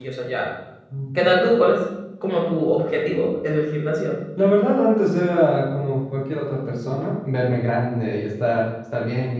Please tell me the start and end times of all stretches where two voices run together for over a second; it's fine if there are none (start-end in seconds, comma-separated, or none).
none